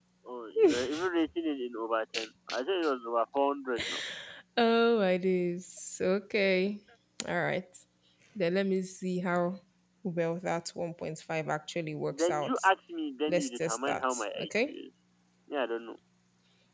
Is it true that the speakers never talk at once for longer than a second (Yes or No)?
No